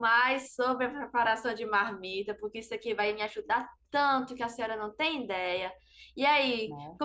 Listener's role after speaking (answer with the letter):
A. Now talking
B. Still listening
B